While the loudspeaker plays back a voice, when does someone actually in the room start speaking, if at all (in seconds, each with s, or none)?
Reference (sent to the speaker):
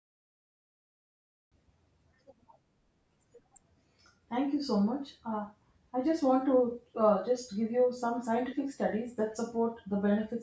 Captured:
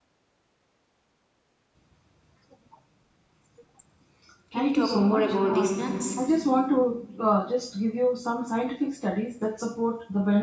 4.5 s